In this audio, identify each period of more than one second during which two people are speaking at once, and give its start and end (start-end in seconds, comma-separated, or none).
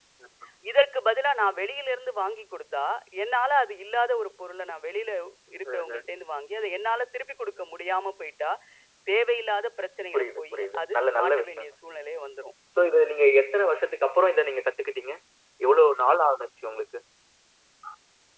10.1-11.7